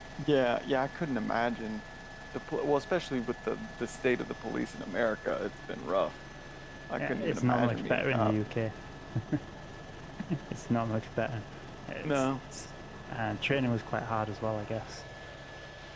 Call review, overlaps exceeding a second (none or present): present